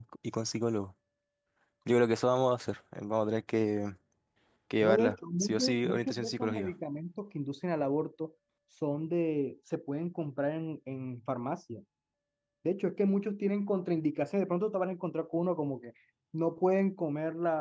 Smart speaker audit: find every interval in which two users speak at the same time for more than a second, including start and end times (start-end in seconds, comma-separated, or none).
4.8-6.7